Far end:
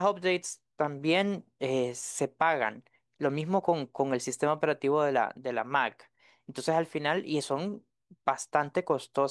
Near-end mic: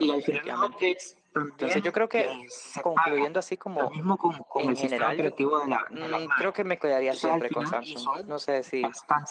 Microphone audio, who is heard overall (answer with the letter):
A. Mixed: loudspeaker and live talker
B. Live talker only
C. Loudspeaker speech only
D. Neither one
A